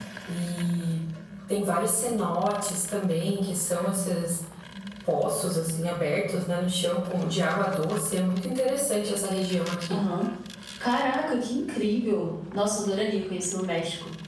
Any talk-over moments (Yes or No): No